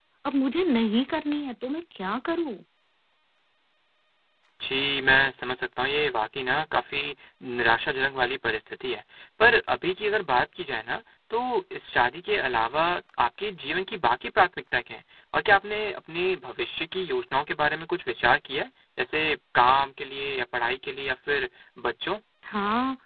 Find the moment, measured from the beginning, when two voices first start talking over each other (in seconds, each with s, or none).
none